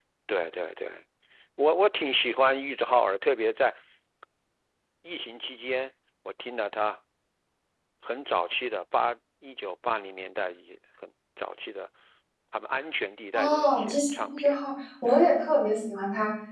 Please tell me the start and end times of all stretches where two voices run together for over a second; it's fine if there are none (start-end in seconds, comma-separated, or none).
13.3-14.6